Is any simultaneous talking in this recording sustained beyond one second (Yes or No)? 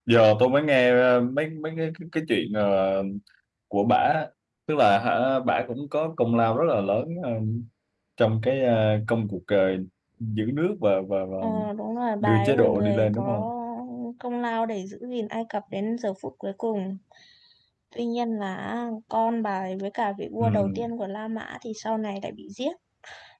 Yes